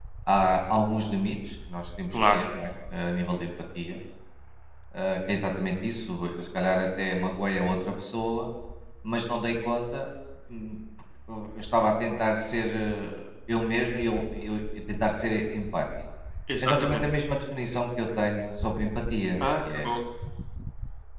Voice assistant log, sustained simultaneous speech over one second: none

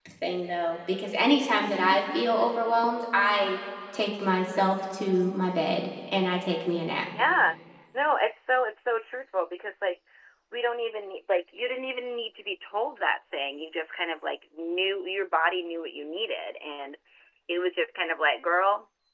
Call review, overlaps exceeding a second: none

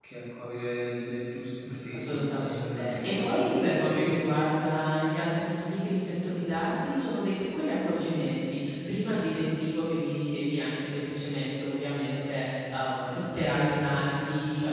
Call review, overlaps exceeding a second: present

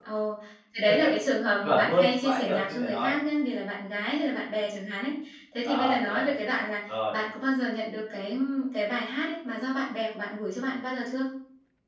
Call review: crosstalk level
present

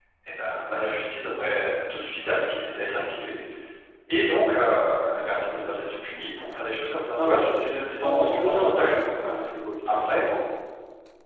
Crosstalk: present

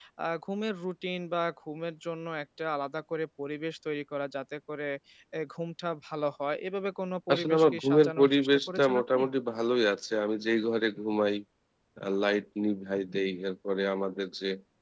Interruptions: present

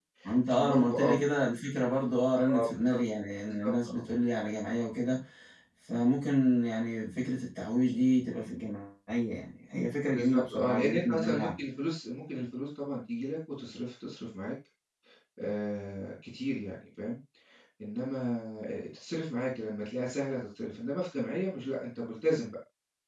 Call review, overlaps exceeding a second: present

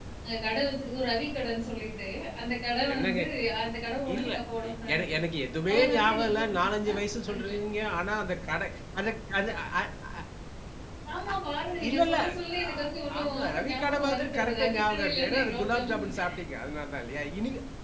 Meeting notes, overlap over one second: present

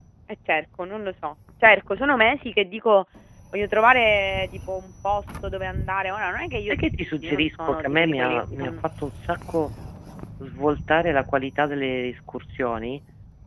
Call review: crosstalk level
present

